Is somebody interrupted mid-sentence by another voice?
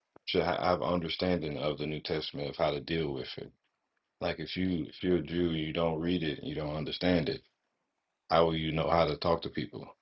No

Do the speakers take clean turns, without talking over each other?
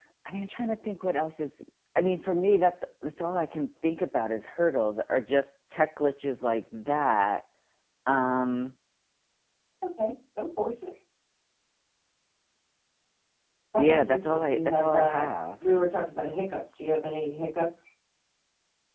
No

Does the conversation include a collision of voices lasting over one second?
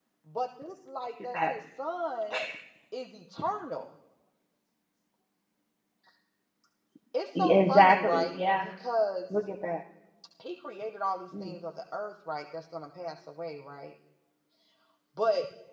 Yes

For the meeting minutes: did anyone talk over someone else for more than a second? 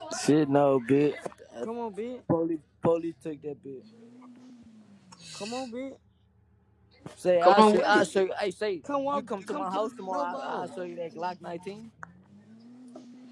Yes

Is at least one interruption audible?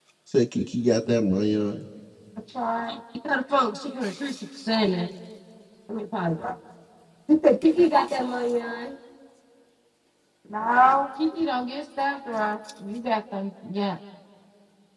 No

